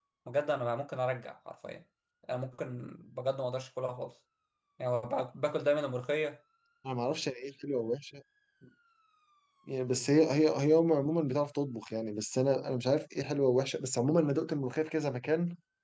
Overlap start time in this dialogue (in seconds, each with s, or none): none